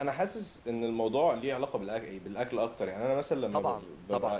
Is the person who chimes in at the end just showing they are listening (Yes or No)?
No